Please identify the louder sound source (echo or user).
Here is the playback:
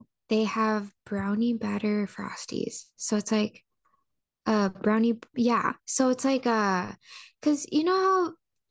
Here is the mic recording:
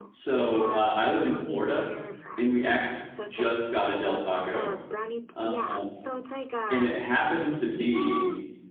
user